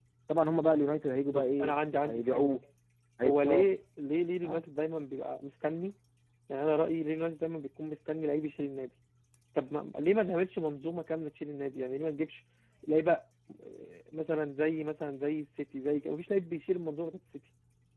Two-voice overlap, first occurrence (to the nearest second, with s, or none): 1 s